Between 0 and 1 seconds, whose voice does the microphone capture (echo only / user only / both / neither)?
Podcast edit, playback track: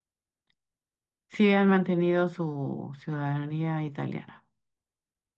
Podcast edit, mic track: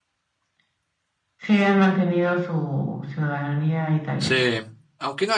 neither